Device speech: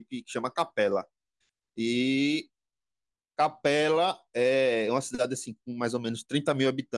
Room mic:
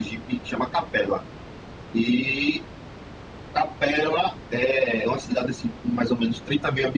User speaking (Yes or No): No